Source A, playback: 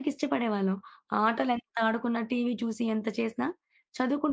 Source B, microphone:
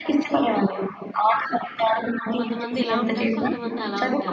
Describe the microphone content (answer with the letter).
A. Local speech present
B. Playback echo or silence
A